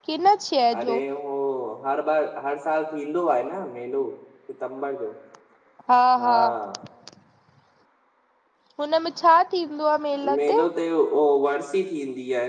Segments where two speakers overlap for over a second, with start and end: none

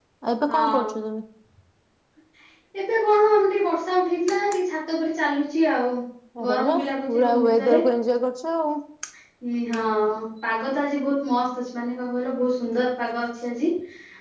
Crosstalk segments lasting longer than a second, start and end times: 6.5-7.8

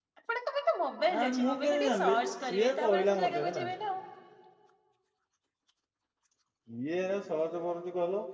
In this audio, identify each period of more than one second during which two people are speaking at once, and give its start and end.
1.2-3.6

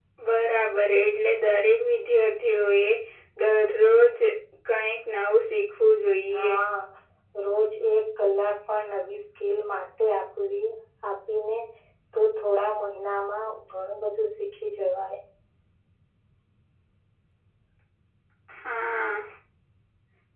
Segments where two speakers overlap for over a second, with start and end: none

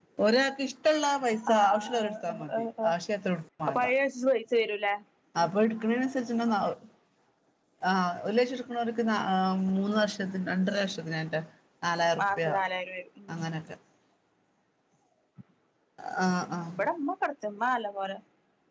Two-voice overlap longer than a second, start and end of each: 1.5-2.9

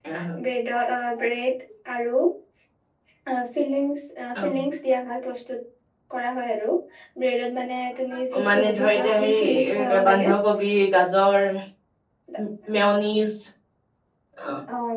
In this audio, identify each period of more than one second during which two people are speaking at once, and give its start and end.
8.5-10.3

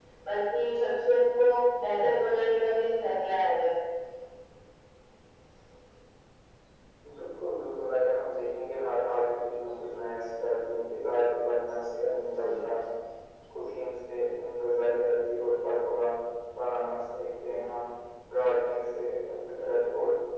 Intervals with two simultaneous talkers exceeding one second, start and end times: none

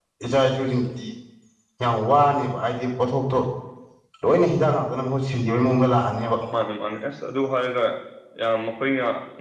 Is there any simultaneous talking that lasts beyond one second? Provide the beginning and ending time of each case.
none

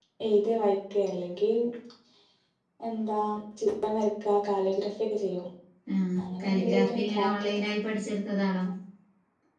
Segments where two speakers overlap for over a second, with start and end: 6.4-7.6

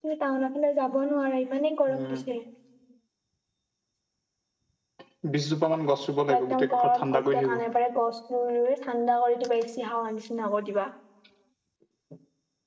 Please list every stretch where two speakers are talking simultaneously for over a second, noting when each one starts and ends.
6.4-7.6

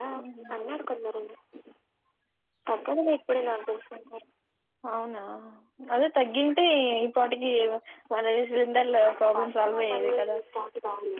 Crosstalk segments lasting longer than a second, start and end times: 9.1-10.4

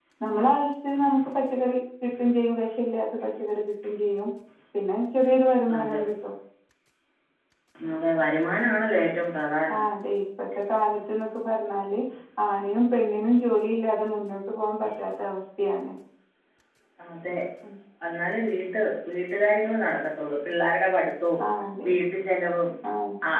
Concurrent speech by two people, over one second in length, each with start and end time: none

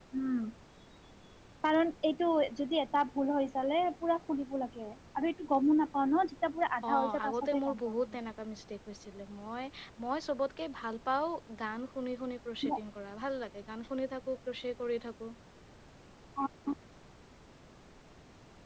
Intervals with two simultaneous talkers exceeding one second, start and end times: 6.8-8.1

